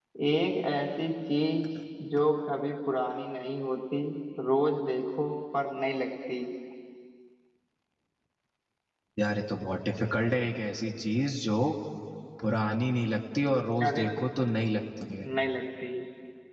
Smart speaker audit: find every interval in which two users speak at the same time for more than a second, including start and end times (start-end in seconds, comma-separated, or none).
none